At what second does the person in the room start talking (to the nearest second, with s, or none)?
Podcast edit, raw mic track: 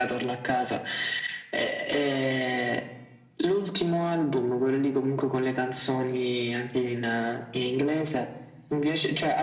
none